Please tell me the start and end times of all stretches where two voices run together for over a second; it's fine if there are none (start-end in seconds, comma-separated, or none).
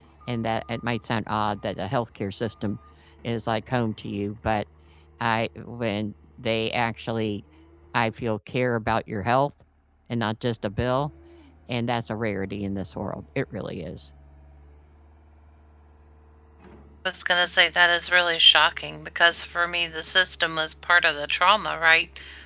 none